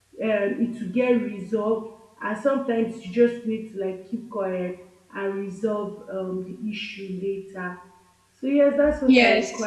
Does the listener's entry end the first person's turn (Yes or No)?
No